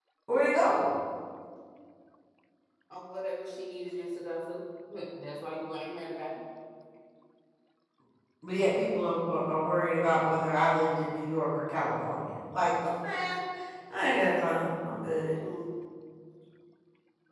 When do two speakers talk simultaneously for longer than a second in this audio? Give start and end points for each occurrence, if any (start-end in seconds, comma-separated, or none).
none